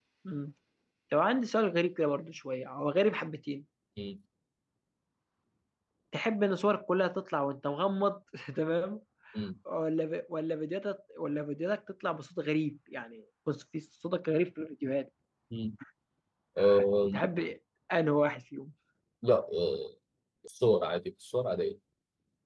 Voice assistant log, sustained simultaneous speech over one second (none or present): none